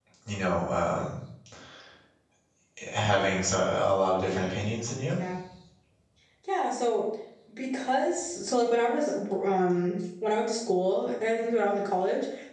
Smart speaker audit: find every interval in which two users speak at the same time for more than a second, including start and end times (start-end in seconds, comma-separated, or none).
none